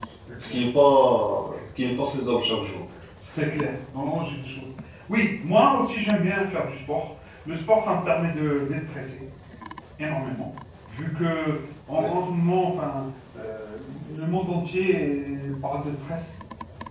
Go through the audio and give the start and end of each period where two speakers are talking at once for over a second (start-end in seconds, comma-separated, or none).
none